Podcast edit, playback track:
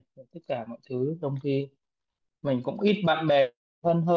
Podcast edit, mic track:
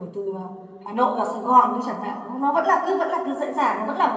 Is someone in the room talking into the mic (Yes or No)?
Yes